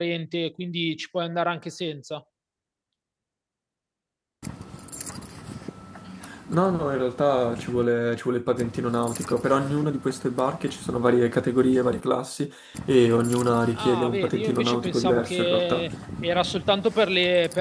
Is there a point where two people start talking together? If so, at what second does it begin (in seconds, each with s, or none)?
13.7 s